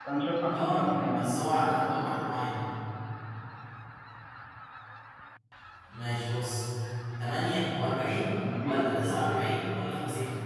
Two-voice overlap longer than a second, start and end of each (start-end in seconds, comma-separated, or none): 0.5-2.1